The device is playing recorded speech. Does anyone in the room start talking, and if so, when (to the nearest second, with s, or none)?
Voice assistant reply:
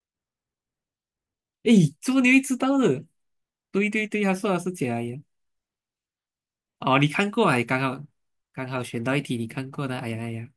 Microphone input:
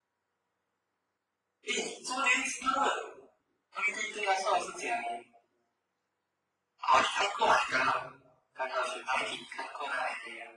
none